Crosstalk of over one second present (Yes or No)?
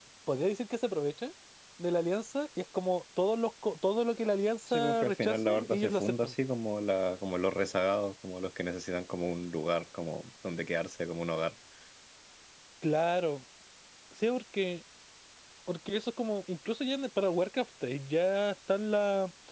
Yes